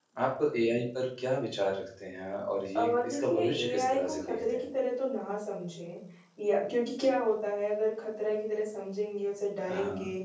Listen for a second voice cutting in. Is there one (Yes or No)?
Yes